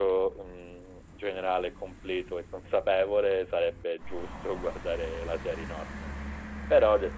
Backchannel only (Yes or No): Yes